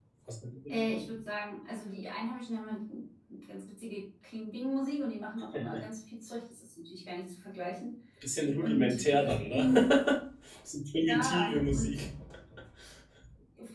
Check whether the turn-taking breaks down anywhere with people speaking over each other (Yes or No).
Yes